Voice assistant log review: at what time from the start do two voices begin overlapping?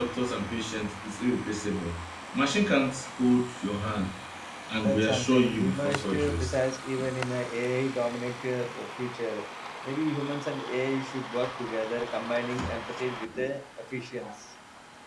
4.8 s

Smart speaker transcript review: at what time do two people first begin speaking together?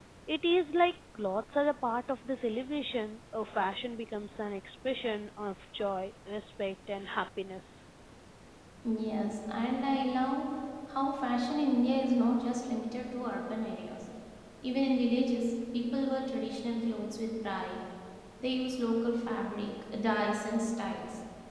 none

